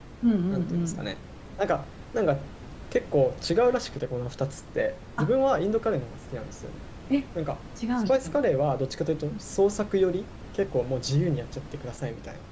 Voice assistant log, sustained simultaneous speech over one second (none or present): none